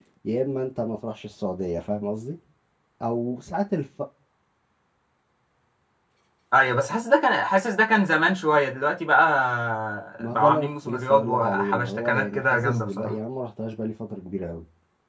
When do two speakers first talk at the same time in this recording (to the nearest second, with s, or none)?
10 s